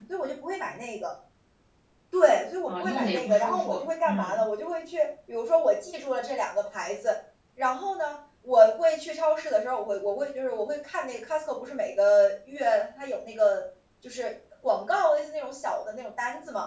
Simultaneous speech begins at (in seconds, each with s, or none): 2.7 s